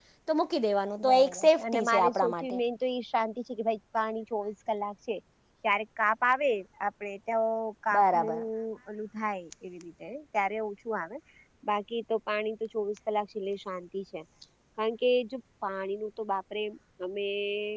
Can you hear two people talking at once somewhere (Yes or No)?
Yes